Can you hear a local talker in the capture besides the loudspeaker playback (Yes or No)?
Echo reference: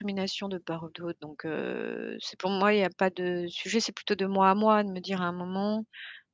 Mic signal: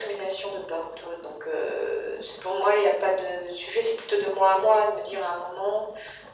No